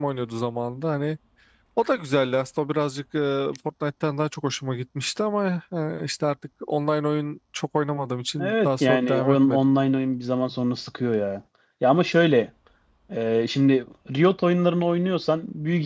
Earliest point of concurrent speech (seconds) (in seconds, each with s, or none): 8.4 s